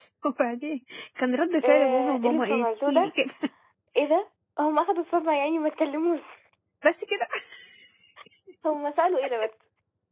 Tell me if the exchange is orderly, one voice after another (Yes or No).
No